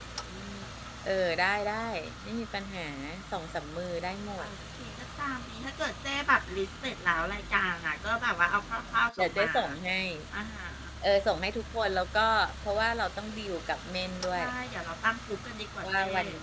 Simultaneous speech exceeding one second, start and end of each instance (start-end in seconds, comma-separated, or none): none